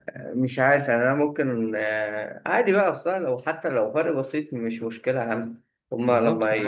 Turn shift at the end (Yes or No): Yes